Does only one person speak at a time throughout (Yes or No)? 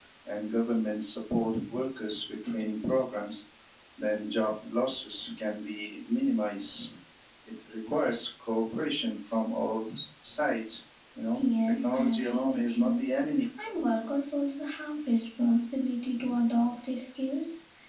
No